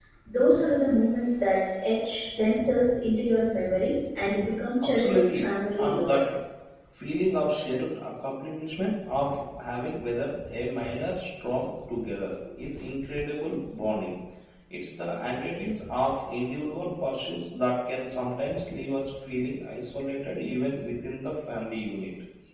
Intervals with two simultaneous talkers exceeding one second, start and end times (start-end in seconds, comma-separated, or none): 4.8-6.2